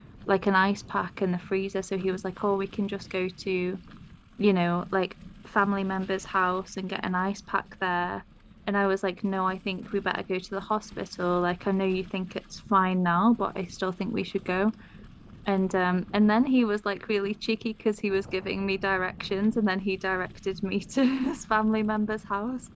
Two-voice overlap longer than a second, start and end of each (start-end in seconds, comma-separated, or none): none